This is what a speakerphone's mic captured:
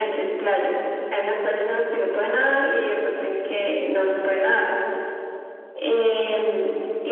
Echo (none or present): present